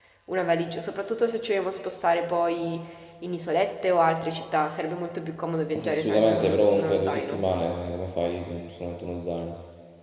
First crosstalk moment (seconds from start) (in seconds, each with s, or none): 5.7 s